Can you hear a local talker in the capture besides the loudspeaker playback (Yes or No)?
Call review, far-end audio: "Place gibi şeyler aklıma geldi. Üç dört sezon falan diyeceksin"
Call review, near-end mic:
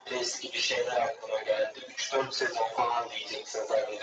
No